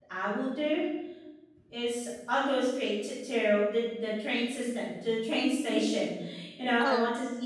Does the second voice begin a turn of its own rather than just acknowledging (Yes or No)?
No